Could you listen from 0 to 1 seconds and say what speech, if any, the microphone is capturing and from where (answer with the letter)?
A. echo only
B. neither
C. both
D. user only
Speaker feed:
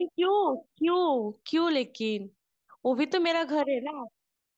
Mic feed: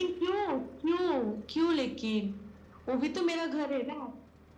A